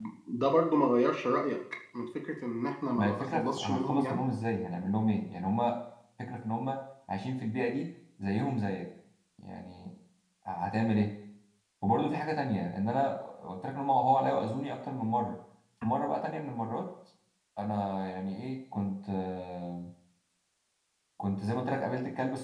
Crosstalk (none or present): present